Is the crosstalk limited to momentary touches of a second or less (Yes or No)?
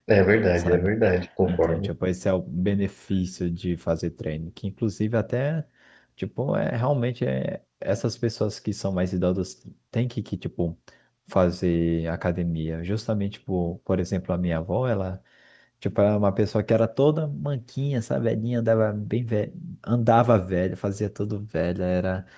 Yes